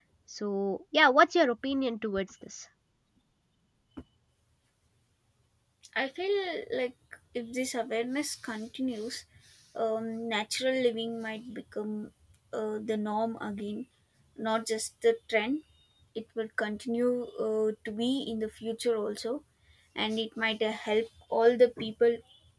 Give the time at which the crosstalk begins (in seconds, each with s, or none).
none